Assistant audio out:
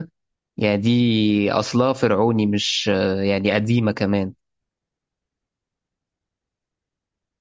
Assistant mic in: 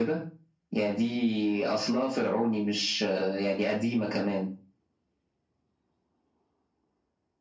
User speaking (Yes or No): No